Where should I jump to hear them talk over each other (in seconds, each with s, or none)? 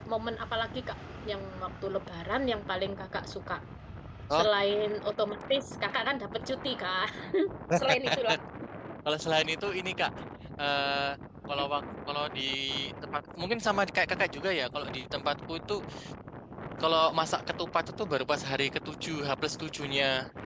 none